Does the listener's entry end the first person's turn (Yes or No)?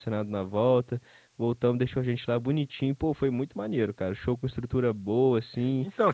Yes